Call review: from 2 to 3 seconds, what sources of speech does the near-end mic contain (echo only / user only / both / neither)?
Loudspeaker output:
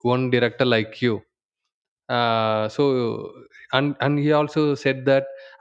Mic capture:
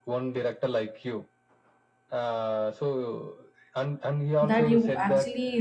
echo only